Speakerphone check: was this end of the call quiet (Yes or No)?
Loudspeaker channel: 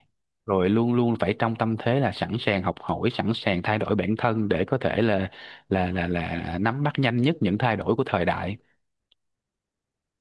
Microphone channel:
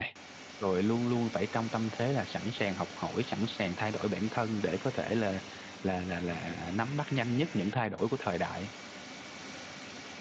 Yes